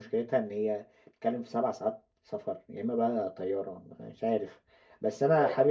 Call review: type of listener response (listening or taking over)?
listening